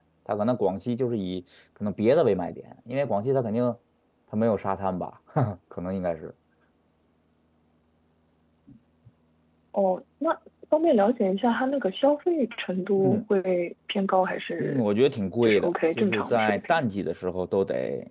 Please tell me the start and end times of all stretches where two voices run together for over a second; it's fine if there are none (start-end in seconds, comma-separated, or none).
15.4-16.8